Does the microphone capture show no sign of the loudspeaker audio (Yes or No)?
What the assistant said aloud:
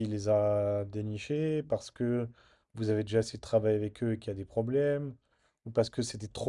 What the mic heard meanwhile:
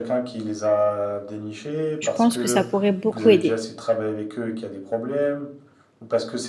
No